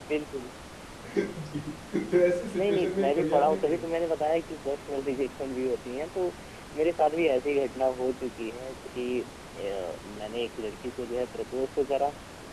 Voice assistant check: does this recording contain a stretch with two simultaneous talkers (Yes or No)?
Yes